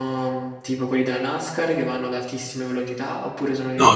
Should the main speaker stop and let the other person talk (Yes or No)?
Yes